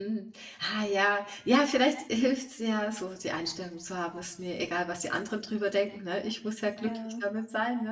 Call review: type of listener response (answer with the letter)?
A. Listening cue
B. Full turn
A